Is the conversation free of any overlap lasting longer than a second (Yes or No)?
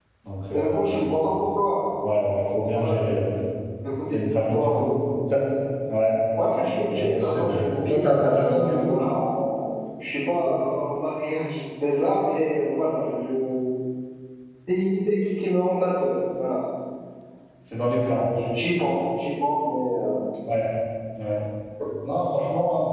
No